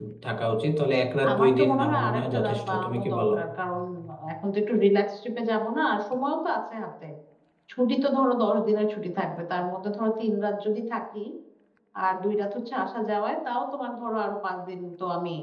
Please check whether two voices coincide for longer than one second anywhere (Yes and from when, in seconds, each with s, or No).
Yes, from 1.3 s